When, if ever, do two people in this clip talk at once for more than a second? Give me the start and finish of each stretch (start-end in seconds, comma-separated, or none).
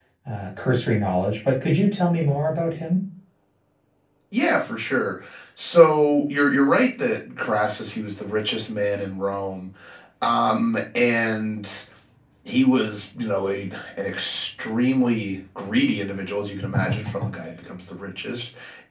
none